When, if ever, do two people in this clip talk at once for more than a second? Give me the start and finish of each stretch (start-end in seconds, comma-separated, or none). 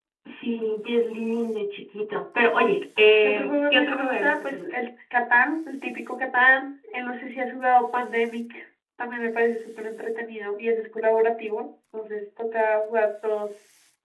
3.2-4.7